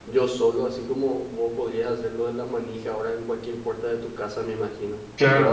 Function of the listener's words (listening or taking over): taking over